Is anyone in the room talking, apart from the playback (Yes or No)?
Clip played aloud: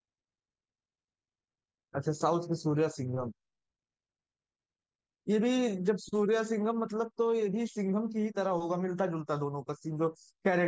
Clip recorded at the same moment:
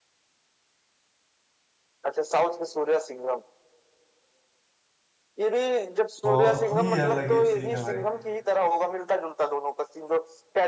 Yes